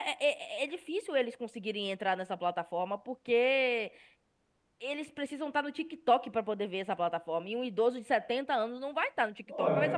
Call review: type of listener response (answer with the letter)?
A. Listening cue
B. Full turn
B